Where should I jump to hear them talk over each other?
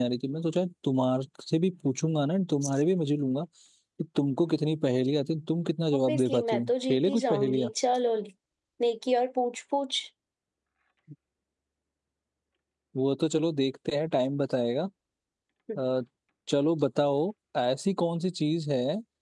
5.9 s

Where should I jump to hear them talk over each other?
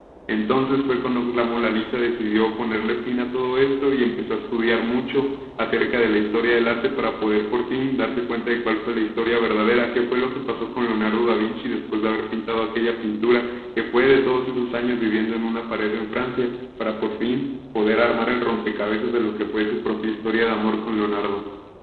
none

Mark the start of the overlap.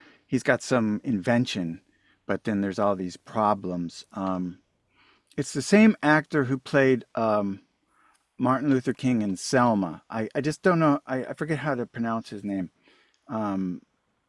none

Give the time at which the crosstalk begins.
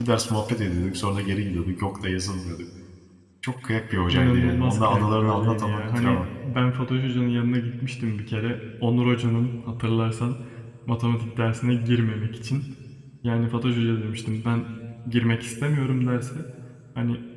4.1 s

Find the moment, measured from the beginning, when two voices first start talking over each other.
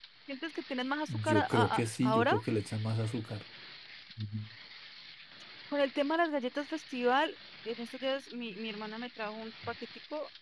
1.1 s

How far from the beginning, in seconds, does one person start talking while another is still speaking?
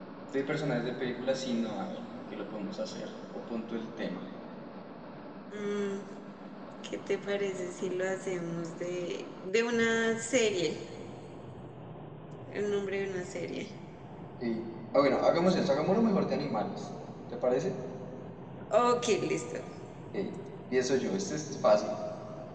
none

